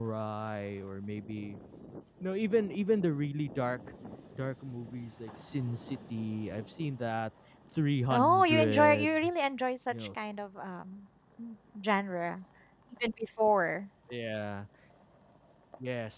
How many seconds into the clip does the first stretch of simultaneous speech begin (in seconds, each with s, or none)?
8.1 s